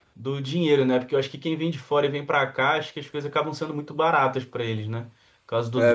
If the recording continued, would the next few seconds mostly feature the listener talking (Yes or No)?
Yes